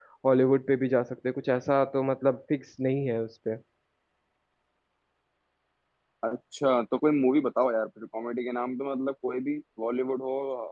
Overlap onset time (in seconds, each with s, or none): none